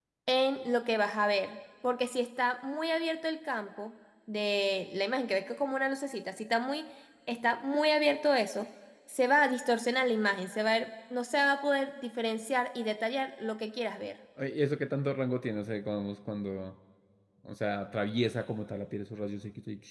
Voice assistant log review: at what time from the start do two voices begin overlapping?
none

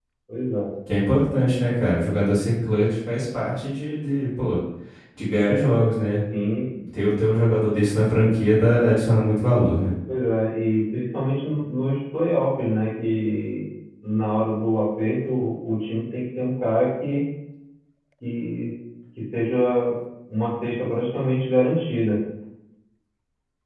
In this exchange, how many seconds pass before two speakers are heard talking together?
none

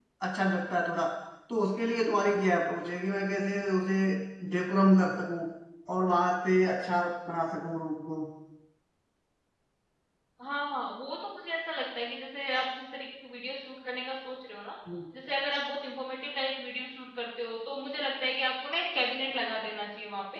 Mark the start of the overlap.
none

